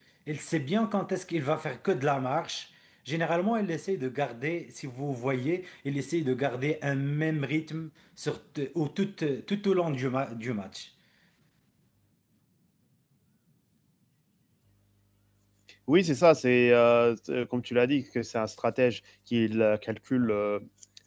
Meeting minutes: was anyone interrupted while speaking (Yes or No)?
No